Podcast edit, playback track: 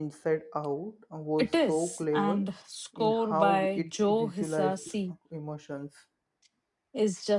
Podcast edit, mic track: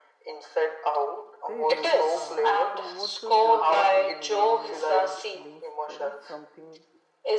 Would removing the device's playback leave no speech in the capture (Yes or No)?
No